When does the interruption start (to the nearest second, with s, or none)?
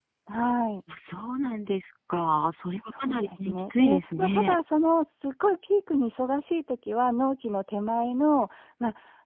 3 s